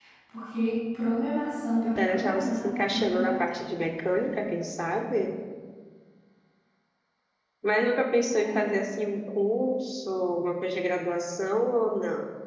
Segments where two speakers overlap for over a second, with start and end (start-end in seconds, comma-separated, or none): 1.8-3.6